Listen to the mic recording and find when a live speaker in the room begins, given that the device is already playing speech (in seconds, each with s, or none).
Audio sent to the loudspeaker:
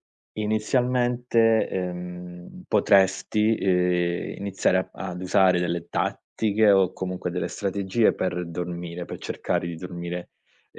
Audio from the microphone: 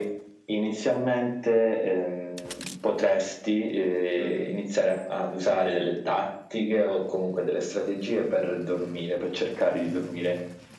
4.2 s